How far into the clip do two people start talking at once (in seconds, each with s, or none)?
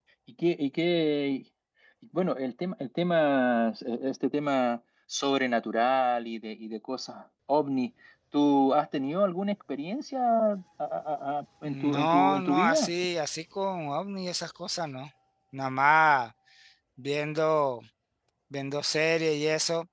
11.7 s